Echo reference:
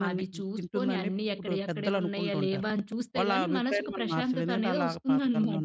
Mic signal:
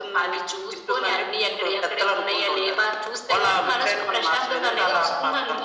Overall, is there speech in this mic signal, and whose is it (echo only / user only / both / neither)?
echo only